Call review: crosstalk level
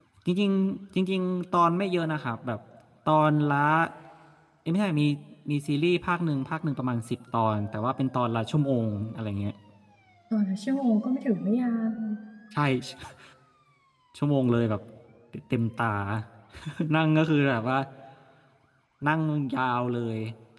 none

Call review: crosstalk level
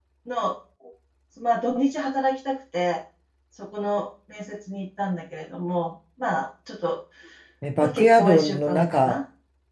present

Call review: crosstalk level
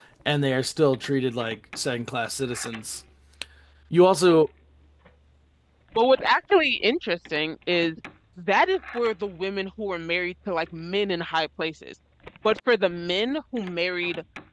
none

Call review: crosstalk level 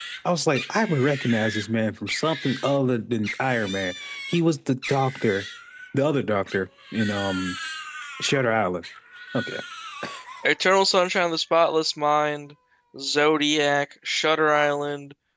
none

